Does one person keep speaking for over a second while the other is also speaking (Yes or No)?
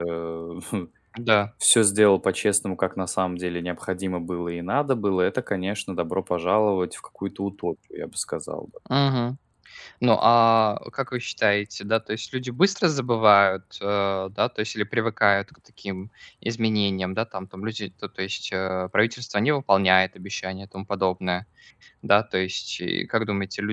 No